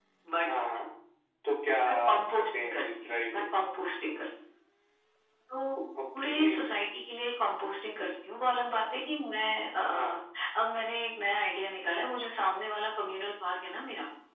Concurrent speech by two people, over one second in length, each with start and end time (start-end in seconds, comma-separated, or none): 1.9-3.4